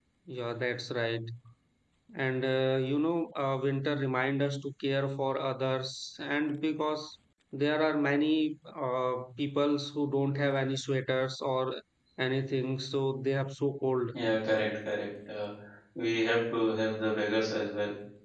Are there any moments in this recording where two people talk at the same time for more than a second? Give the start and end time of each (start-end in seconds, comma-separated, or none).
none